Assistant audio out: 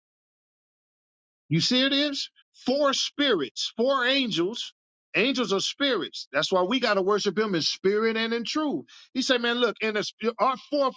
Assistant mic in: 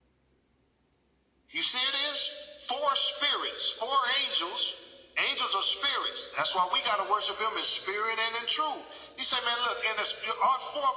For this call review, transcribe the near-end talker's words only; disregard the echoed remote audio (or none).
none